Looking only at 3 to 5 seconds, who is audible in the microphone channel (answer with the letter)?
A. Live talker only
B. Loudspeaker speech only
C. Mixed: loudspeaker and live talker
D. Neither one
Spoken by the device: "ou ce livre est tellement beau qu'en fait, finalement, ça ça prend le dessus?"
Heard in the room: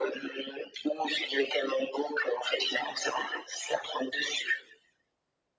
B